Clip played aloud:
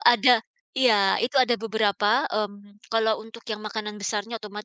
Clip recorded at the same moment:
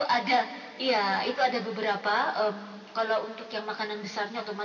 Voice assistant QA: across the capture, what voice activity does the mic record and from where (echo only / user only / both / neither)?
echo only